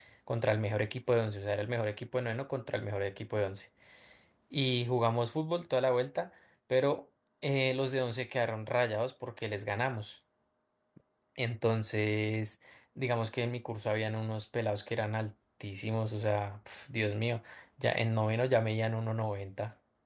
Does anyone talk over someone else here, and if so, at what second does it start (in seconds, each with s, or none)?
none